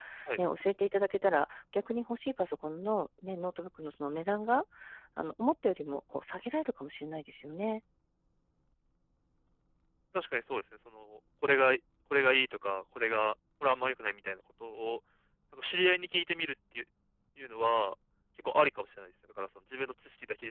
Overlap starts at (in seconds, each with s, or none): none